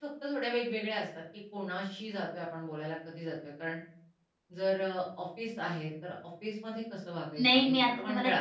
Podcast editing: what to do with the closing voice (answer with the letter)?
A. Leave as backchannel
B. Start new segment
B